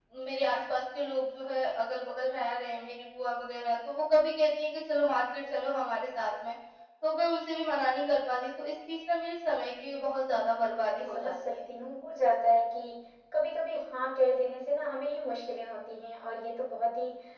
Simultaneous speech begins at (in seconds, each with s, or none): 10.3 s